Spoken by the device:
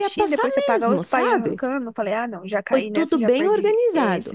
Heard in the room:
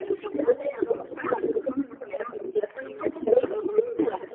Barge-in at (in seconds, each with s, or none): none